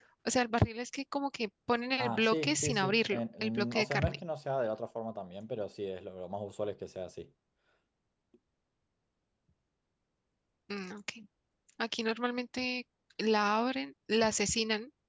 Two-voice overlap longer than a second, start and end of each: 2.0-4.2

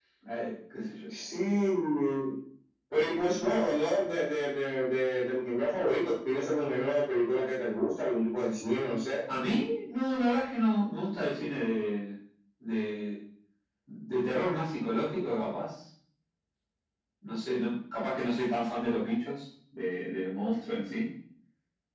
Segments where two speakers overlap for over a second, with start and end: none

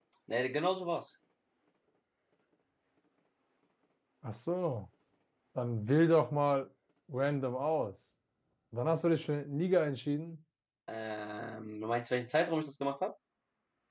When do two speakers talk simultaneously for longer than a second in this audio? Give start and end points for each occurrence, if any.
none

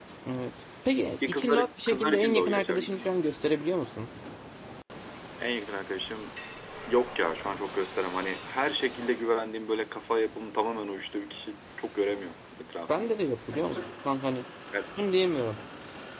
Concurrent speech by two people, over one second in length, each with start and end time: 1.3-3.1

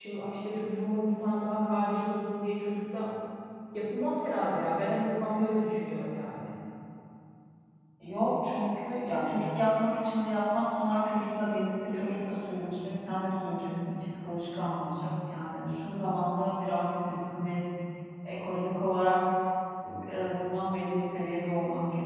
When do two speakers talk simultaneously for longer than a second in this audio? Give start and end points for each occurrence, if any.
none

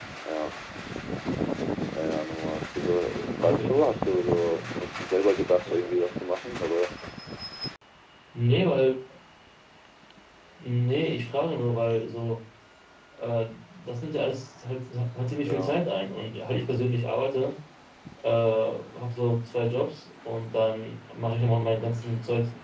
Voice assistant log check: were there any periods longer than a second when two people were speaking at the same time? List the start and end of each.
3.4-4.6

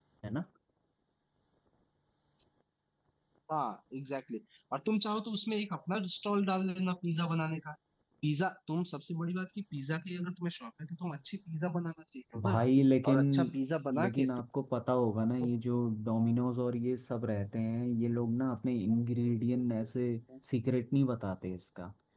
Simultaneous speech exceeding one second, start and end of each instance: none

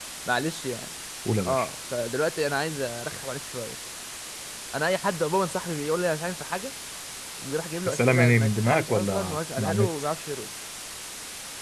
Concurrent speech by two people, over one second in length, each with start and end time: 7.9-9.9

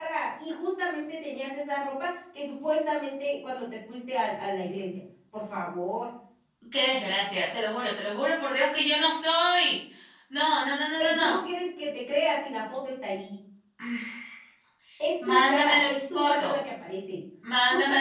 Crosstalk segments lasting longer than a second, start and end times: 15.3-16.5

